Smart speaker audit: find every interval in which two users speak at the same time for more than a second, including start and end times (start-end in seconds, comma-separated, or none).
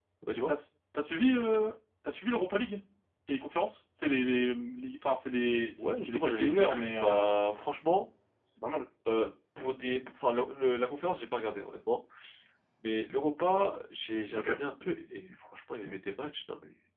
5.8-7.3